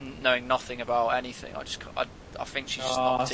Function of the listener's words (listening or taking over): taking over